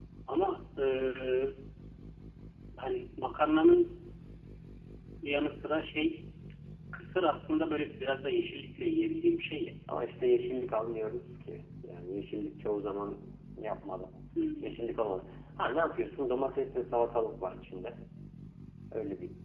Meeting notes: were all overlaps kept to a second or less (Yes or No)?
Yes